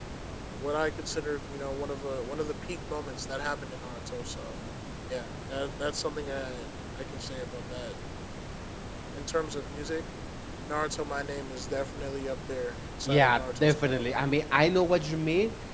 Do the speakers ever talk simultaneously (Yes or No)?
Yes